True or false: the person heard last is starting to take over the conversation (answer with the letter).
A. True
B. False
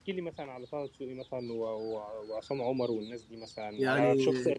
B